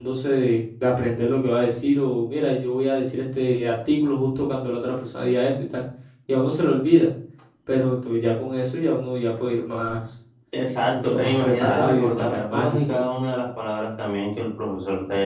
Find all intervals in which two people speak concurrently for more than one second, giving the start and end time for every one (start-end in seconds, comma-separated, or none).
10.9-13.1